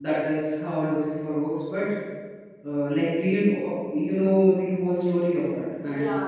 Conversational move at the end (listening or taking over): taking over